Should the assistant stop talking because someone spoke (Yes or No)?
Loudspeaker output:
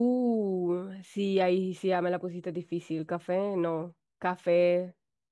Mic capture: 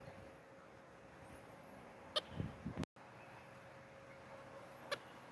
No